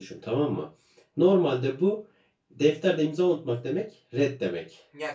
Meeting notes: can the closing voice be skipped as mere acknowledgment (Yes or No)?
No